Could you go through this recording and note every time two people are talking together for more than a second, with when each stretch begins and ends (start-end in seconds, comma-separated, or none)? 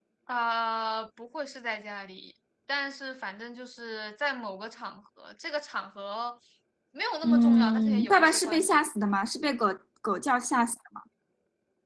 7.2-8.8